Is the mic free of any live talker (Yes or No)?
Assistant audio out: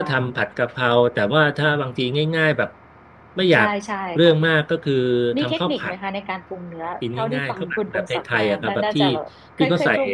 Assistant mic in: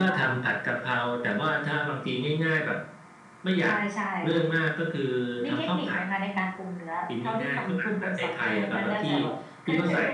Yes